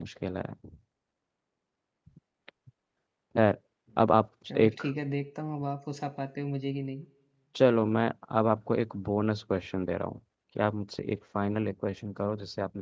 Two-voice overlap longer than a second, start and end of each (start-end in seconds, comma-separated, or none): none